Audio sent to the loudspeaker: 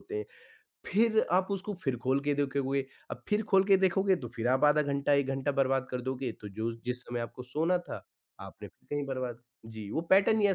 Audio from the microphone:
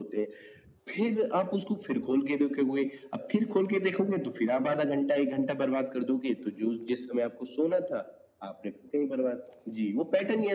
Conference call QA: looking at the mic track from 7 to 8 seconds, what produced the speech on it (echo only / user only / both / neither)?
echo only